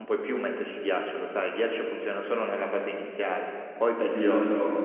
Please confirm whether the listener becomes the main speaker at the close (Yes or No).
Yes